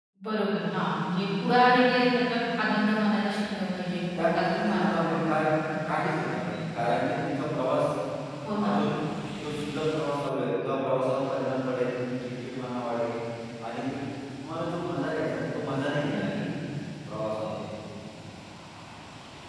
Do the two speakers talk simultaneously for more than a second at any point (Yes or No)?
Yes